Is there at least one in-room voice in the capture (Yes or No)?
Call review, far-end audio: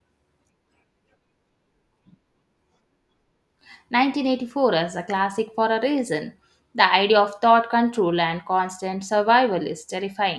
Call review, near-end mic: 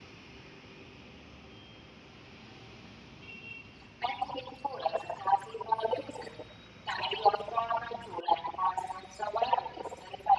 No